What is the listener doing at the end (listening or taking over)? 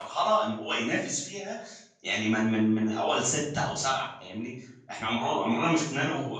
listening